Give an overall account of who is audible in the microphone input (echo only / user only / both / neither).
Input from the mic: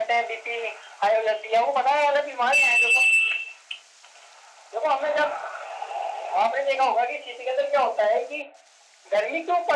echo only